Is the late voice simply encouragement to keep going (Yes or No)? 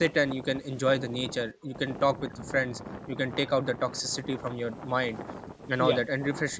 Yes